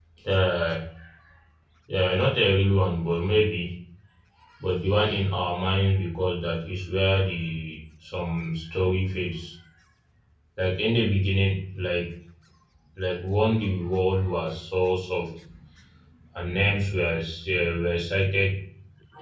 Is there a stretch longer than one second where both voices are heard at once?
No

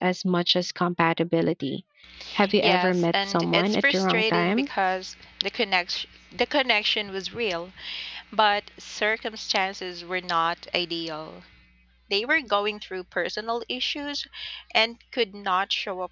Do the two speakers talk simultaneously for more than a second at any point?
Yes, from 2.6 s

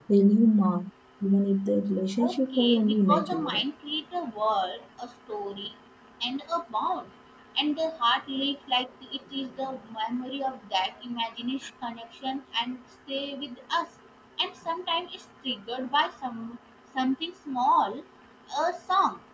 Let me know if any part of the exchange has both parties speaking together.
Yes, from 2.2 s

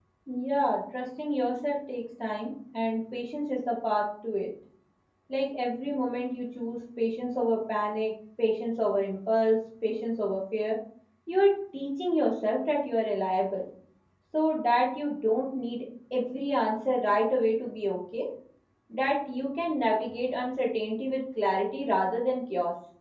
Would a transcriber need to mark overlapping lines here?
No

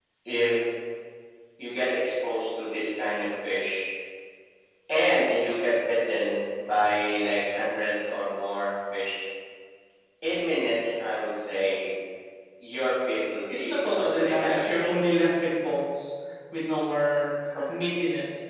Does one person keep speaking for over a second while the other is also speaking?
Yes, from 13.5 s

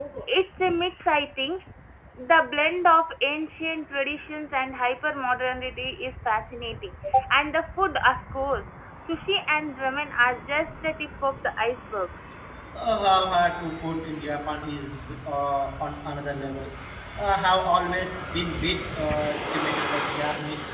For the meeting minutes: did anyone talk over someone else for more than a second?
No

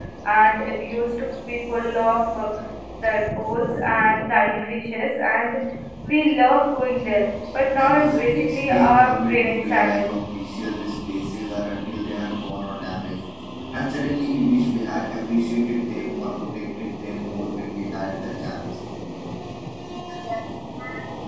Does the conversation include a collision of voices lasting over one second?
Yes, from 7.8 s

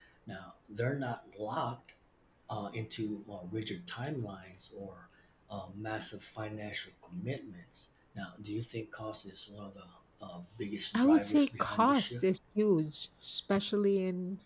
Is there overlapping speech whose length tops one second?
Yes, from 10.9 s

